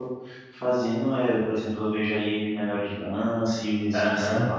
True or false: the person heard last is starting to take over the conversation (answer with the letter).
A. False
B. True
B